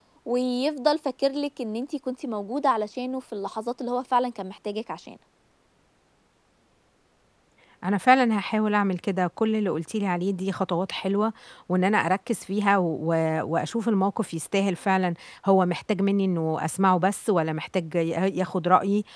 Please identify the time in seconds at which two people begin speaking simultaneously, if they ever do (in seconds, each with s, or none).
none